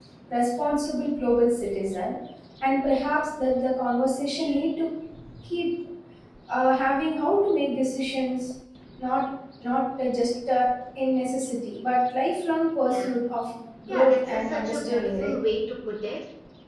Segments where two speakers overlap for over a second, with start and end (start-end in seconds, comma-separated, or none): 13.9-15.3